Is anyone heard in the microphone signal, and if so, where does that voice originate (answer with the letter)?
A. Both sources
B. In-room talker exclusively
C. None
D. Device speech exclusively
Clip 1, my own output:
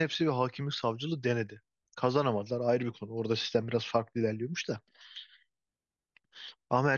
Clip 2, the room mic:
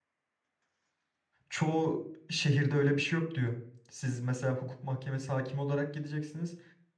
B